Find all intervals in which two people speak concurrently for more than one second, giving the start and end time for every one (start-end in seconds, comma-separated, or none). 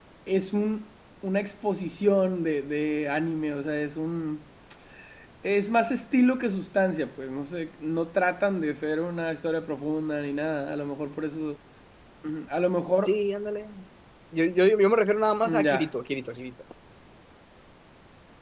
none